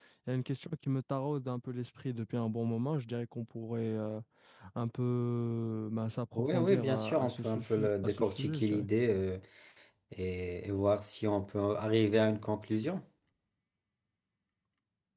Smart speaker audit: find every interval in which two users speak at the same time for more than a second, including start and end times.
6.4-8.9

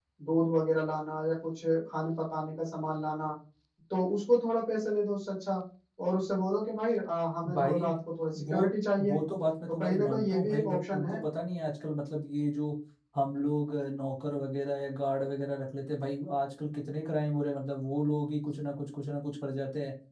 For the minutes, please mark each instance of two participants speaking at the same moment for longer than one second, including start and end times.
9.7-11.2

